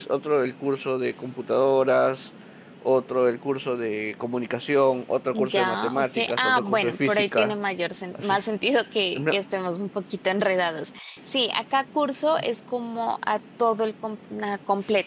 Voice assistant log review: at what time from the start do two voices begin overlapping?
5.5 s

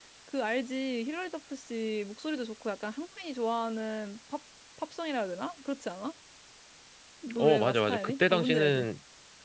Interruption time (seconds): 7.4 s

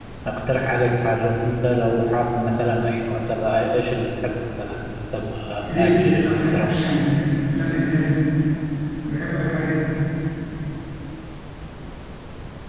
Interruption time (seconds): 5.8 s

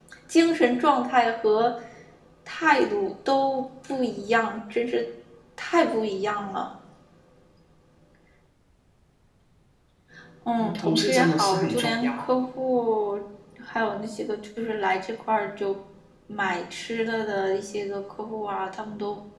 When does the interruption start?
10.6 s

